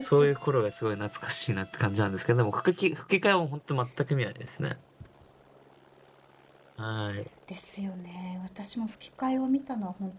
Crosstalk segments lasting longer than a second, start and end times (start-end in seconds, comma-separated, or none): none